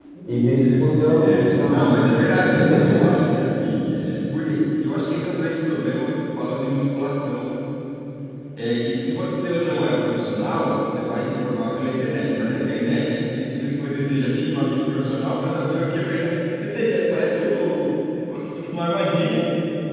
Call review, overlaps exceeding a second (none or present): present